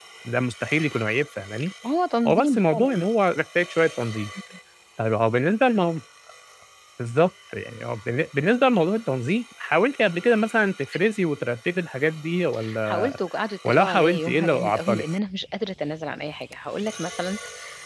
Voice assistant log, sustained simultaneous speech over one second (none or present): present